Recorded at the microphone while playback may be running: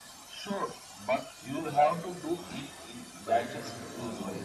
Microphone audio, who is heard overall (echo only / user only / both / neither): both